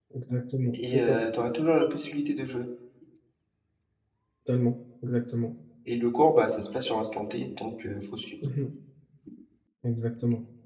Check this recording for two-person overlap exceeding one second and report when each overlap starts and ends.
none

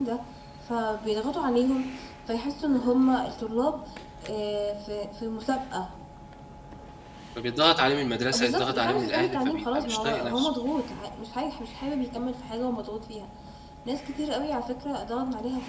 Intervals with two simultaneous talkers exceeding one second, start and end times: 8.3-10.5

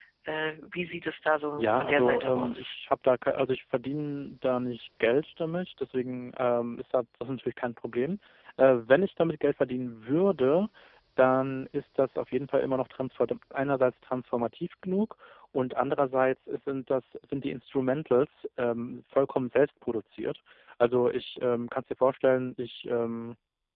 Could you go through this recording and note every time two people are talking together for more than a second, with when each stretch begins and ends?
1.6-2.8

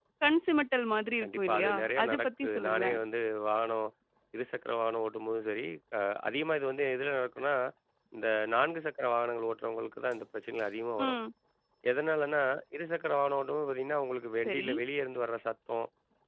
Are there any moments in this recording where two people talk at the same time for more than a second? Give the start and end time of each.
1.2-3.0

